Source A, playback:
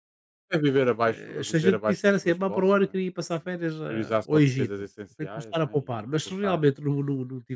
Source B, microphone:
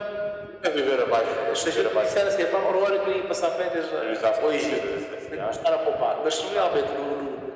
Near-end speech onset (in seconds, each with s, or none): none